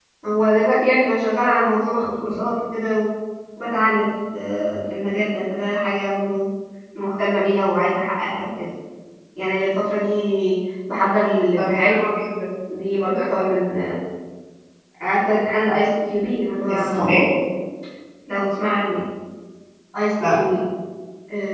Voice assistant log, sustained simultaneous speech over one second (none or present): none